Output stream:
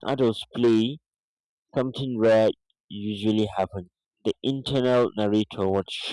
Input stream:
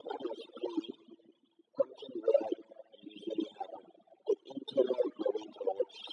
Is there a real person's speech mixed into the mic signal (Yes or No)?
No